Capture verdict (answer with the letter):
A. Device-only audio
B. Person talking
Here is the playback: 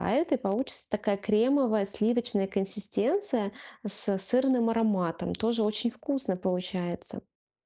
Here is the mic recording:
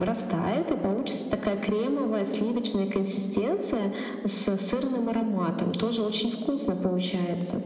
A